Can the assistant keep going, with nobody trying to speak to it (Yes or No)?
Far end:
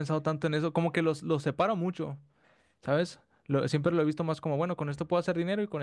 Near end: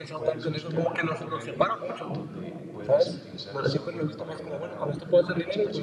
No